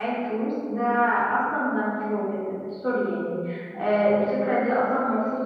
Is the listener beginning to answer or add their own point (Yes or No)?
No